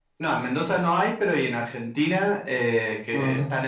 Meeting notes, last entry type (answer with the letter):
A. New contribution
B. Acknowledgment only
B